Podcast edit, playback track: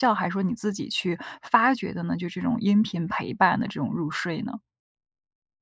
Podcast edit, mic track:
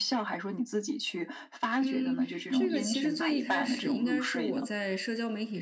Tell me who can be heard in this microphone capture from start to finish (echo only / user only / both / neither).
both